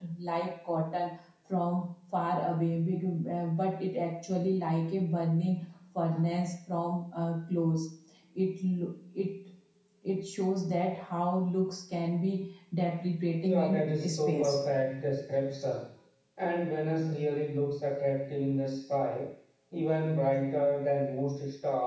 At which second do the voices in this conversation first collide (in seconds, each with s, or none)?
13.4 s